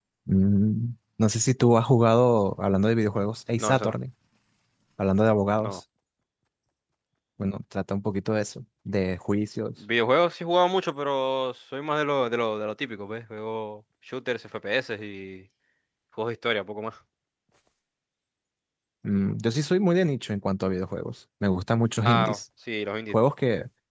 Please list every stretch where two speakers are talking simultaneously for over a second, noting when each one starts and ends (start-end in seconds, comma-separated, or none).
none